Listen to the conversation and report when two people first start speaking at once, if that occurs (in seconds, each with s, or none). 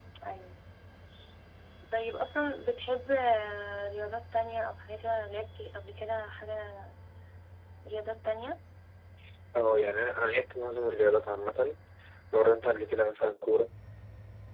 none